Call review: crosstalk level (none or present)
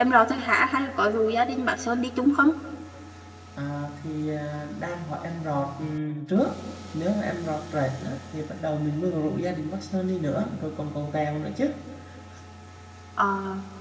none